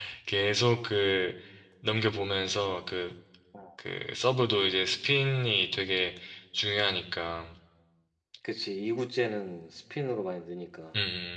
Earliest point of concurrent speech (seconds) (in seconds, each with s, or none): none